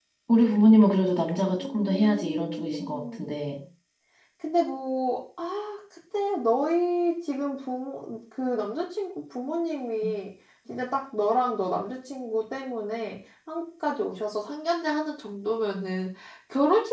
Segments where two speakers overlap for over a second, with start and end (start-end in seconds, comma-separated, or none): 1.6-3.3